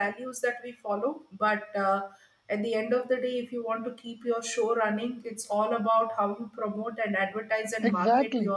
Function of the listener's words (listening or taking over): taking over